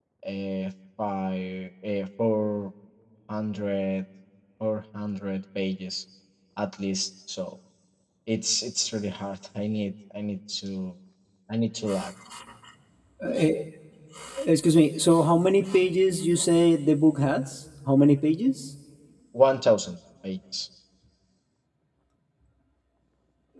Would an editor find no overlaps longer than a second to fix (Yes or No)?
Yes